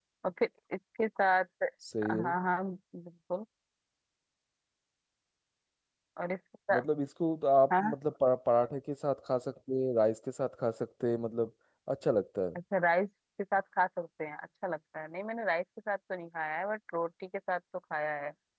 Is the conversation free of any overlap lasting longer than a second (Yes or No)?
Yes